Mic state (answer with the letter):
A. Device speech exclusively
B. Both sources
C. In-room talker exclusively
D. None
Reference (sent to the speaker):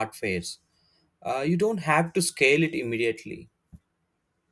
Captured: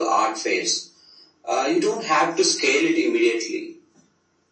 A